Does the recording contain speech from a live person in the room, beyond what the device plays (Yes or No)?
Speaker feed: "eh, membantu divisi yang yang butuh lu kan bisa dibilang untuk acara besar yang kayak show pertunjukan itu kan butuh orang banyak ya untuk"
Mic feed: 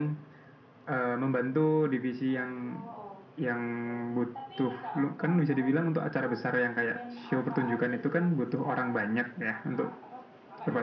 Yes